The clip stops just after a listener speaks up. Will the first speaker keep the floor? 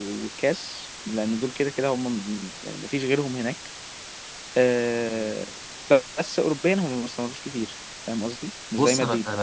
No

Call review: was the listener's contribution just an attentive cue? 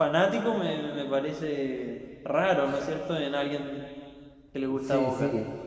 No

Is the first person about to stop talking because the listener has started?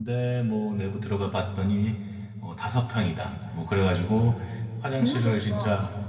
No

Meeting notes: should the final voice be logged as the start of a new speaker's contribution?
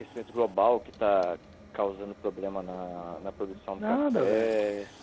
Yes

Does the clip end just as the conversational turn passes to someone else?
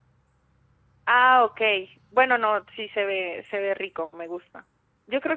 No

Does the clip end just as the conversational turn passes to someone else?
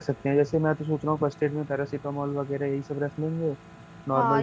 Yes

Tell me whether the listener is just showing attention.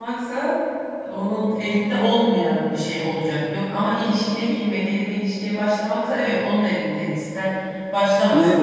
No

